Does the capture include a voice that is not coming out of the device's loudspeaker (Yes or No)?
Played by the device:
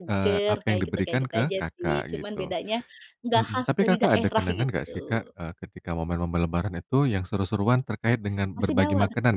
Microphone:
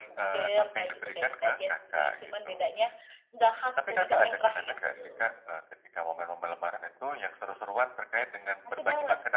No